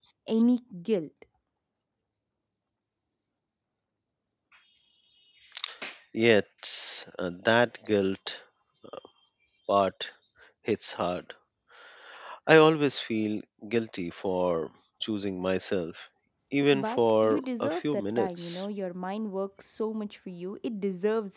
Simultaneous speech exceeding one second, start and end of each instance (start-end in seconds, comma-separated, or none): 16.7-18.6